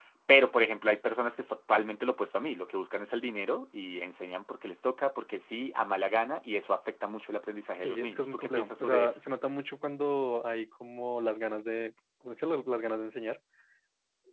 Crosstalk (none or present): present